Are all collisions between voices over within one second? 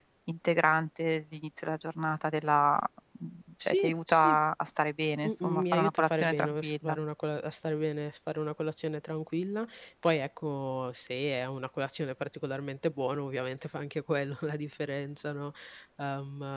No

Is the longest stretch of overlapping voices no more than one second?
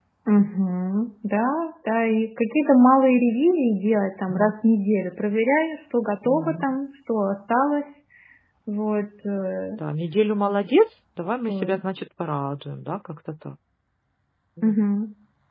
Yes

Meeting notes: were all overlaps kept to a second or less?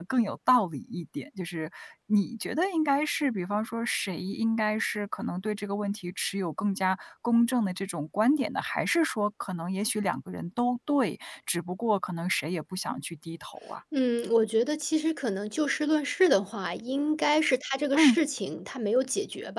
Yes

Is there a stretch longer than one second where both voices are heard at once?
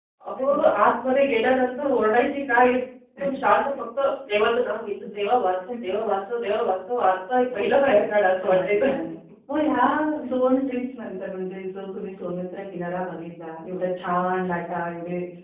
Yes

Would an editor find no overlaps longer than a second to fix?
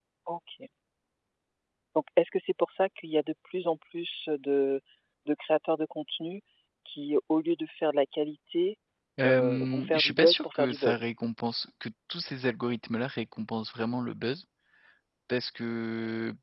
No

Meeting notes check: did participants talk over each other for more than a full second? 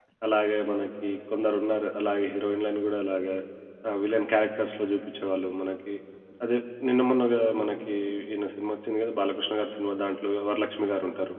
No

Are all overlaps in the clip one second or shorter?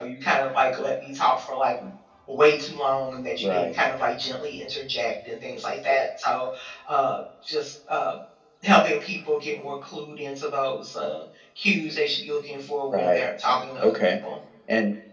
No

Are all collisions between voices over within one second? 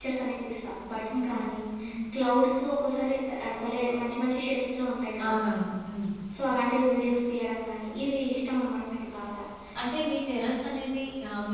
Yes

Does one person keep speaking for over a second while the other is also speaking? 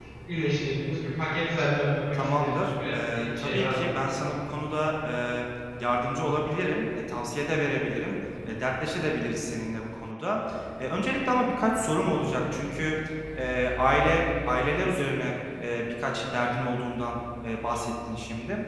Yes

